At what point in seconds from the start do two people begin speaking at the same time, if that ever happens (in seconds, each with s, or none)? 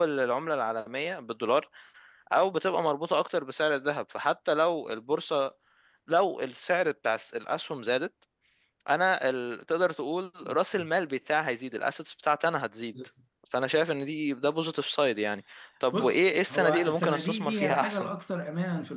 15.9 s